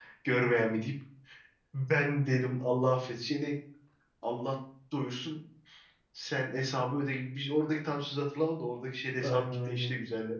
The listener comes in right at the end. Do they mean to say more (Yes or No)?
Yes